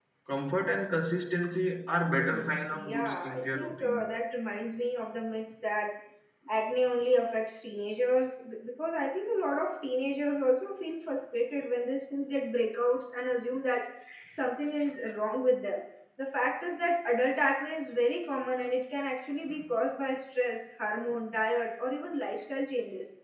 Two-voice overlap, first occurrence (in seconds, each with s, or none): 2.1 s